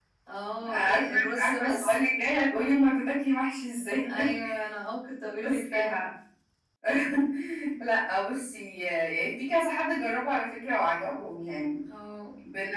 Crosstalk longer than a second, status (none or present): present